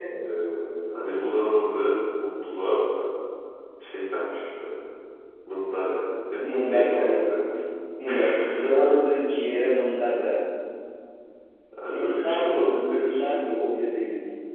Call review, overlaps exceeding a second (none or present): present